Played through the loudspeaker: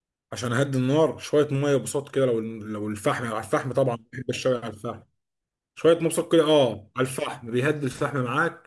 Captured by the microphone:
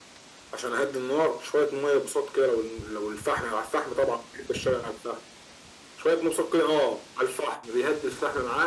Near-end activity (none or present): none